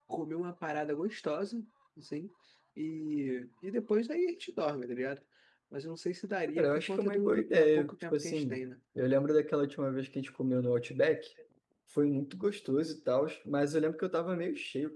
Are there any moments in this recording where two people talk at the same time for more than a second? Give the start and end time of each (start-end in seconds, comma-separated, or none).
6.5-8.6